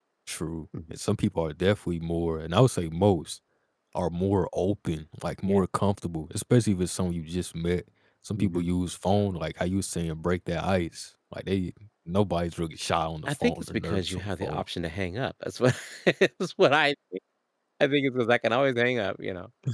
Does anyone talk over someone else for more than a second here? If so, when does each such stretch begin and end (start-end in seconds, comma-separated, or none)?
13.2-14.6